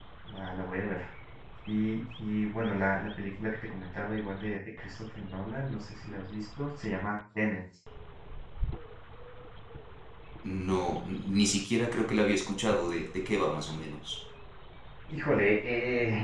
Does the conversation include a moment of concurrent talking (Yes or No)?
No